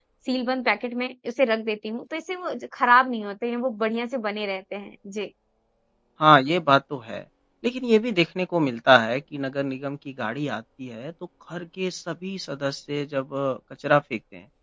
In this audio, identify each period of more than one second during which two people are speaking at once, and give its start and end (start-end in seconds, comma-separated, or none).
none